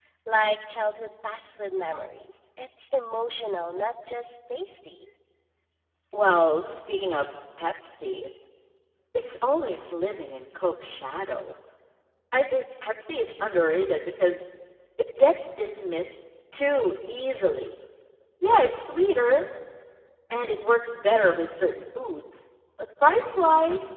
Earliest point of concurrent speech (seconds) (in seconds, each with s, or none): none